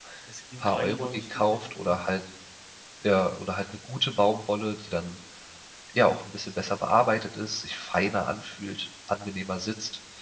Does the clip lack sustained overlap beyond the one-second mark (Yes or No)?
No